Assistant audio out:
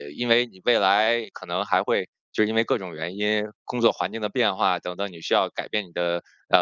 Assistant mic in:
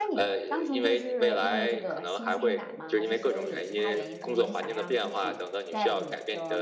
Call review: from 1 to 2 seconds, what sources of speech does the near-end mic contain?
both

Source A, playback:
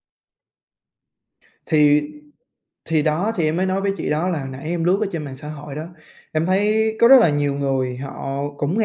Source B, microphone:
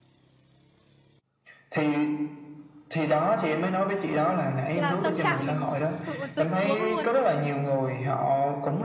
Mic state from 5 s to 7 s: both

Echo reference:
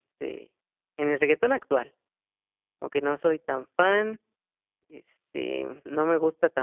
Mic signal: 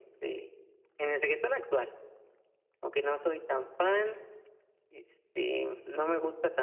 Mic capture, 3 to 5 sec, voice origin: echo only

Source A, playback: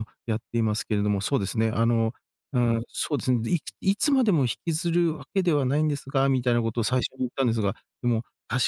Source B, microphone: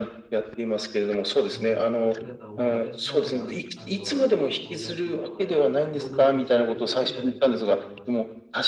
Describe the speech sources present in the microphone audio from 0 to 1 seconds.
echo only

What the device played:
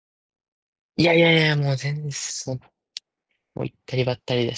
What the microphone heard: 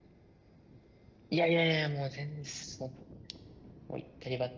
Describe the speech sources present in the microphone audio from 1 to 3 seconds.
echo only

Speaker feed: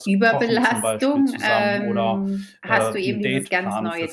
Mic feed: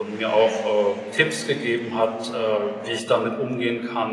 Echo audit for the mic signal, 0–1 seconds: user only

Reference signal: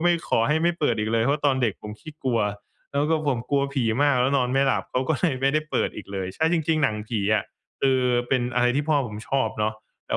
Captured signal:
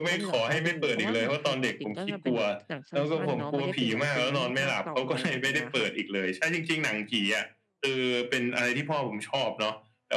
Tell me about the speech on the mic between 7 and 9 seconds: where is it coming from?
echo only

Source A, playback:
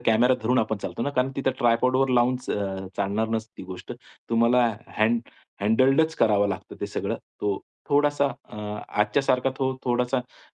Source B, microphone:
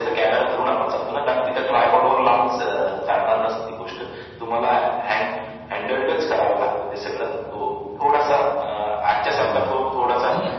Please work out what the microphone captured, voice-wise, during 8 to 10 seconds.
both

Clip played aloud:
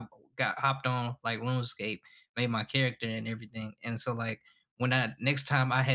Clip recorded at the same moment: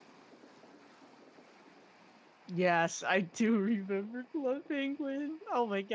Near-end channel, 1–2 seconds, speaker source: neither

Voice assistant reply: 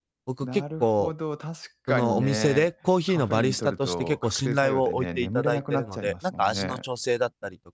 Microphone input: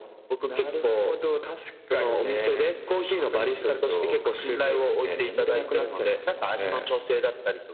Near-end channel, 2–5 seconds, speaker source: echo only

